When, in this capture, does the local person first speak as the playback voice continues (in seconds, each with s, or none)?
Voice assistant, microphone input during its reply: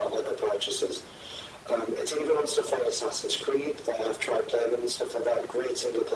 none